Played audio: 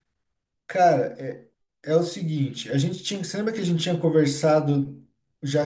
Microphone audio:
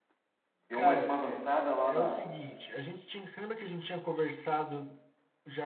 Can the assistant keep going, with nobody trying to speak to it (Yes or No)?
No